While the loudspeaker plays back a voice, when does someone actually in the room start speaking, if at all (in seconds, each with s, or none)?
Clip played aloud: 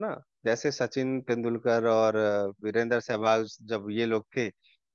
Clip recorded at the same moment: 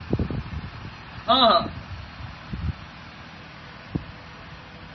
1.1 s